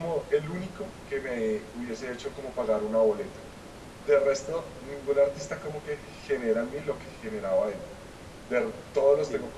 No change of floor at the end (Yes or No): Yes